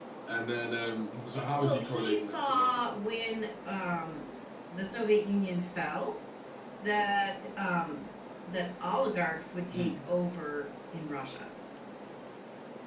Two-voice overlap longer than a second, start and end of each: 1.6-2.8

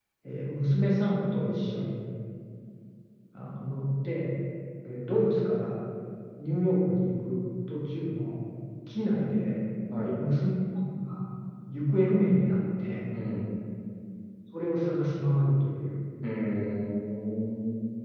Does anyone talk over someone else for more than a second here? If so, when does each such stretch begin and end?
none

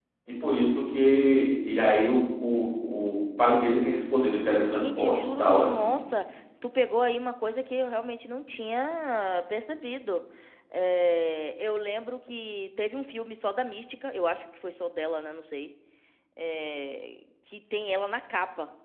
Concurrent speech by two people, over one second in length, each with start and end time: 4.7-5.9

